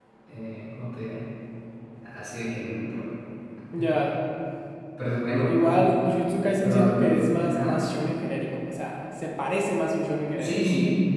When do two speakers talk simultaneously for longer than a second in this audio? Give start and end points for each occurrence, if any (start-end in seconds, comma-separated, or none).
6.6-7.8